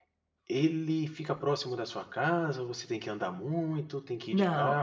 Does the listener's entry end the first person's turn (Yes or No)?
Yes